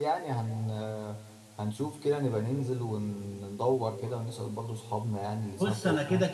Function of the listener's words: taking over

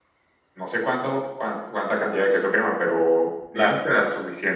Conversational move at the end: listening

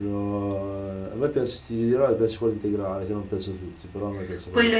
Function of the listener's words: taking over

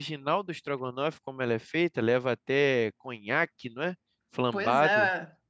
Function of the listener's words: taking over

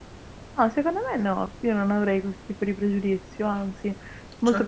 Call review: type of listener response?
taking over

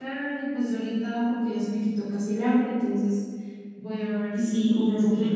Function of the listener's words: taking over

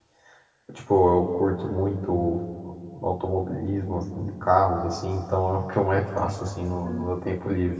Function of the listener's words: taking over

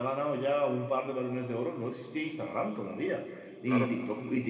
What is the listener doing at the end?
listening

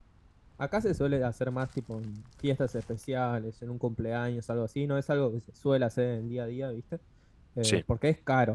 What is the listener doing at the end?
listening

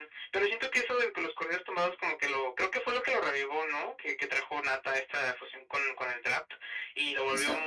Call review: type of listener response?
listening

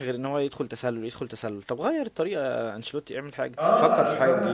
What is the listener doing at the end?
taking over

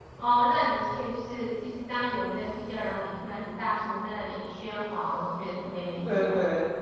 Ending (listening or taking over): taking over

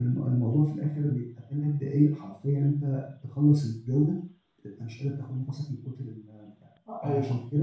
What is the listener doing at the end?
listening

